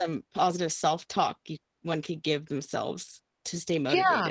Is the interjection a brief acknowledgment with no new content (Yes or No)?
No